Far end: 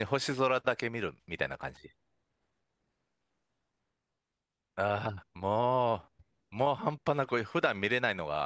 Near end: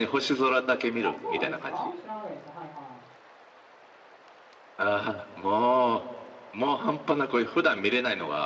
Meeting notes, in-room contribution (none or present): present